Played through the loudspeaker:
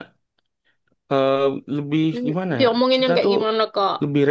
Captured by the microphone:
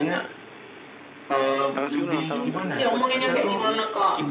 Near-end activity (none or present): present